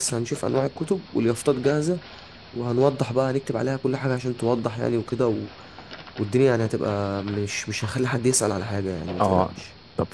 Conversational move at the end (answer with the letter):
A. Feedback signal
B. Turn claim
B